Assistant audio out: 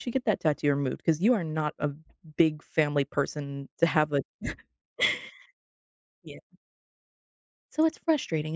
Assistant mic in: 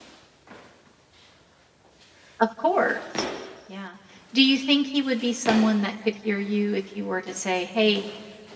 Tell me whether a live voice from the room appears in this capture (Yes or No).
Yes